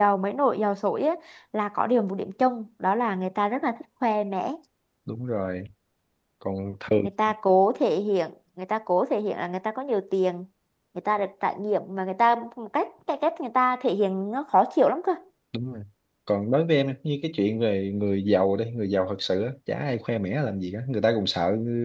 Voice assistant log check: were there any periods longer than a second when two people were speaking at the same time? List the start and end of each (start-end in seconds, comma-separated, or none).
none